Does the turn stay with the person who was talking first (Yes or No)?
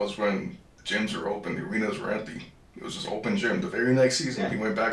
No